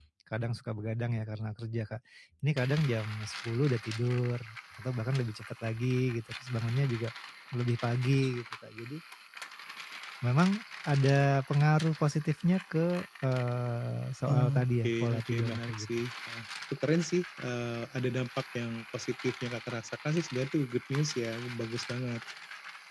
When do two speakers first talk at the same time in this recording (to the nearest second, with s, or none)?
14 s